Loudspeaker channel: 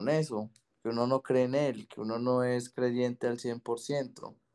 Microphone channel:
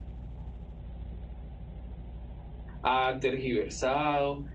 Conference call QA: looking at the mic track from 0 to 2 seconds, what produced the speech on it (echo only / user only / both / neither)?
neither